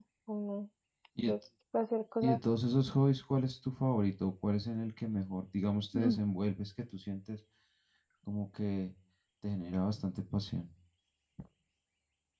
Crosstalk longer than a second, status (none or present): none